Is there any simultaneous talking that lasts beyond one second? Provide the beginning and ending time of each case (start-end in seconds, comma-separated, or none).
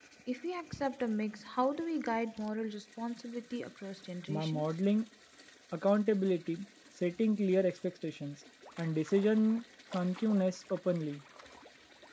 none